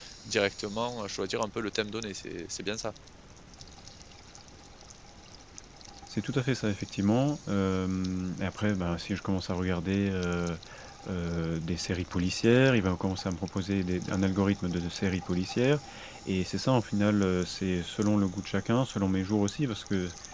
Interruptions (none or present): none